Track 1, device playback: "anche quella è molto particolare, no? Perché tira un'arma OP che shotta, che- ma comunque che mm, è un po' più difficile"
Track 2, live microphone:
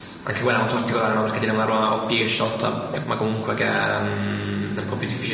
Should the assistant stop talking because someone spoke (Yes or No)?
No